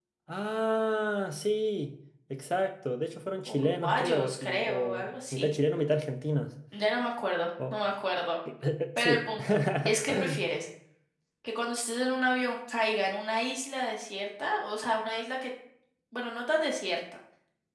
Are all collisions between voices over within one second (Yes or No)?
No